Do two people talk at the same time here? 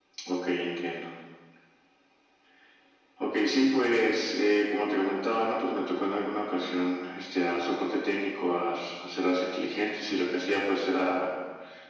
No

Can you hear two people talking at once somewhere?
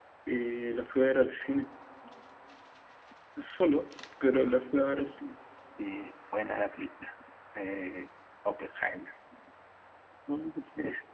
No

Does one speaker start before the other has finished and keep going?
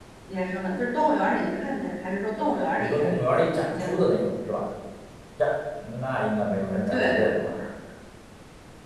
Yes, from 2.8 s

